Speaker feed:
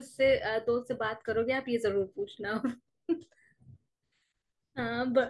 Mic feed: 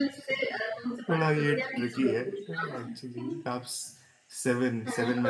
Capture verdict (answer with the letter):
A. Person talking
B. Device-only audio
A